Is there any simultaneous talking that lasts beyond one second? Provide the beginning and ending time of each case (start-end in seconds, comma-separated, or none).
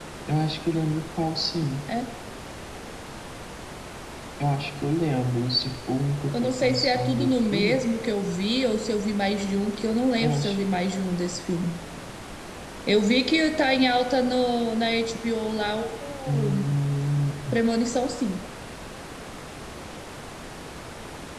6.4-7.8